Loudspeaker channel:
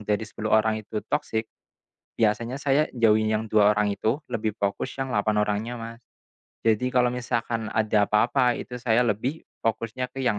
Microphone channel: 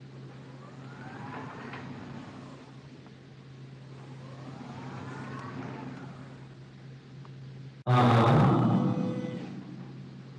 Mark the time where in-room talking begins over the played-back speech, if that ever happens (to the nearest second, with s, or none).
8 s